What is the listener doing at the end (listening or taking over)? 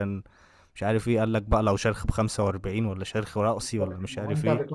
taking over